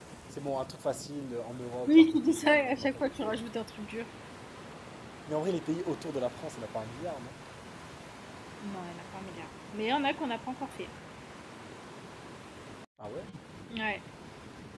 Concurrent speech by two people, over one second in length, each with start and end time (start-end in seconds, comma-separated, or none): 1.9-3.4